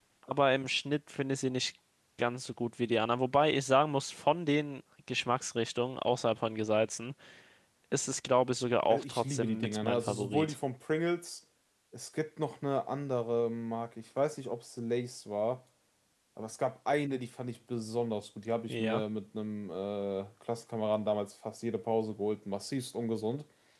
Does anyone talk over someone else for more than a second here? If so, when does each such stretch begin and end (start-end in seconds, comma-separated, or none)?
8.9-10.5